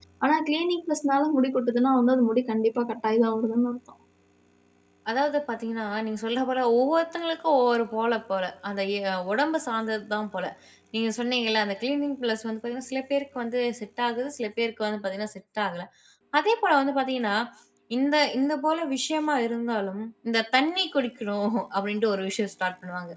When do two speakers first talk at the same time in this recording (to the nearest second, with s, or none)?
none